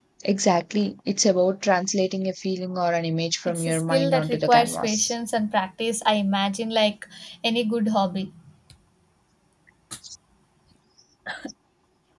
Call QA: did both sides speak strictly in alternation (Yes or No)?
No